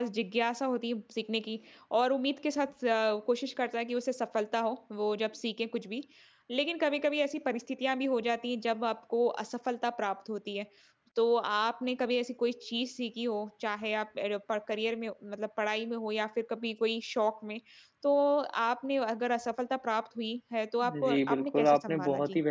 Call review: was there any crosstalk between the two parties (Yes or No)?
Yes